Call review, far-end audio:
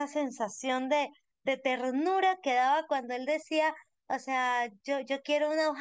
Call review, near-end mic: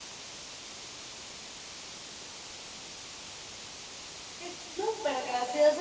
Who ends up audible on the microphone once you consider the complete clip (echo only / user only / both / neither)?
user only